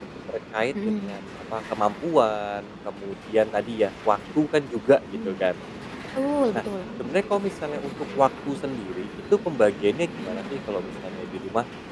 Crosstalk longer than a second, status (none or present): none